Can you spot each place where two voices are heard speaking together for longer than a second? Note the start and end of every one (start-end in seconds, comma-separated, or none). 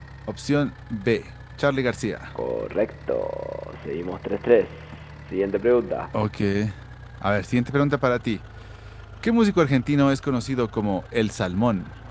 none